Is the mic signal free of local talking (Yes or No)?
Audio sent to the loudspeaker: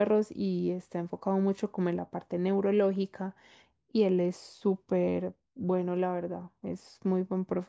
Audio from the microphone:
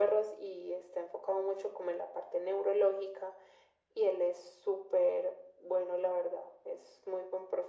Yes